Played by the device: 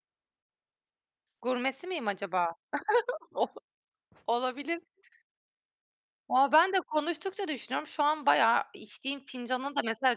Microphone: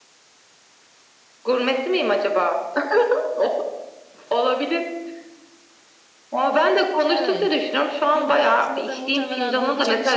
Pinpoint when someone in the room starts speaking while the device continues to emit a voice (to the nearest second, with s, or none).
7 s